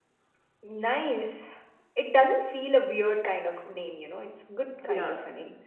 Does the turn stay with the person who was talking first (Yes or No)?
No